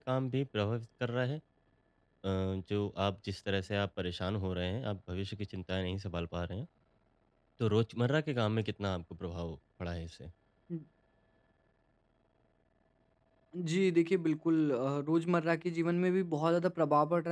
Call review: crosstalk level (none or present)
none